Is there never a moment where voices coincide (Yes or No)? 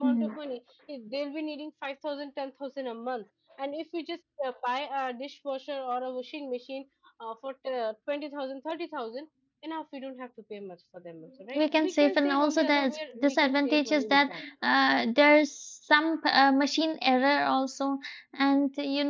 No